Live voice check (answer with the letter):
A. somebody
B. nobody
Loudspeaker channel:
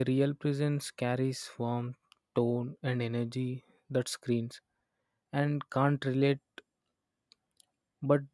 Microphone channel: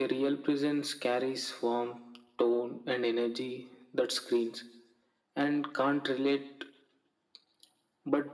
B